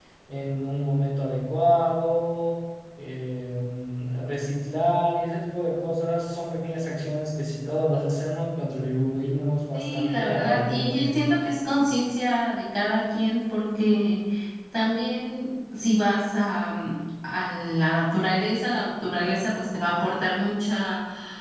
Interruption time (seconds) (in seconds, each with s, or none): 9.7 s